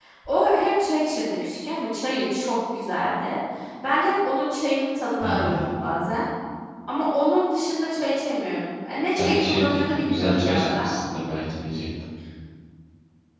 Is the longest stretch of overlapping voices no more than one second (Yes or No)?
No